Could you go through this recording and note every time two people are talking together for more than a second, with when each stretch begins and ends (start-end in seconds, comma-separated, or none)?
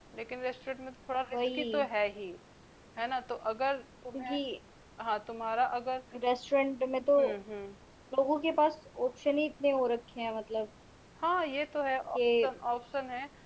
none